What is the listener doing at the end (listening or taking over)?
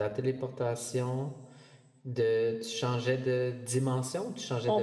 taking over